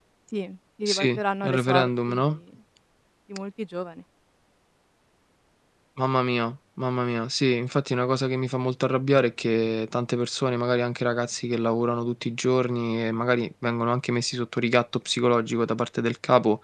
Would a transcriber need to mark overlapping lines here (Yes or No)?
Yes